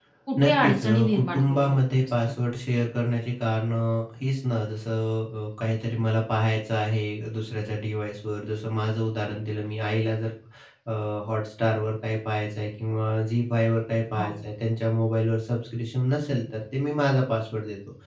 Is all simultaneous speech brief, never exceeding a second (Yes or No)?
No